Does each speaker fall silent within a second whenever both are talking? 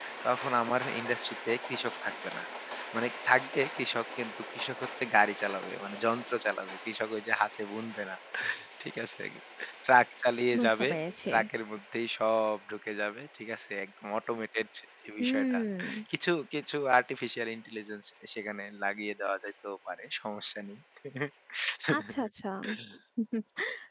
Yes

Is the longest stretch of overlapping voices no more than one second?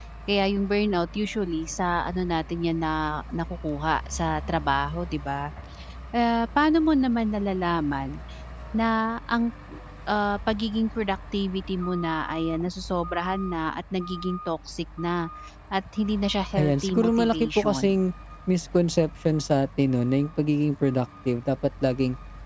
No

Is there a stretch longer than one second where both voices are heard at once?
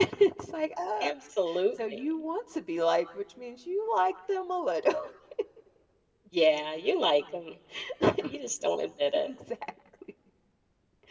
No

